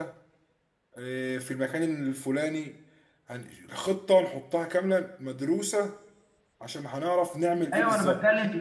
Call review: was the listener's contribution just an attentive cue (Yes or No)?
No